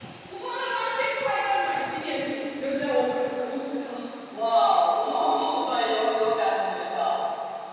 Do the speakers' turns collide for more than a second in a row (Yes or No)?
No